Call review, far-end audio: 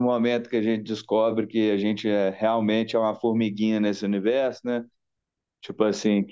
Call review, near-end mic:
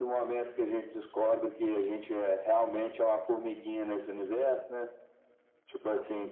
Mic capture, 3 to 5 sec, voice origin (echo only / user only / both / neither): echo only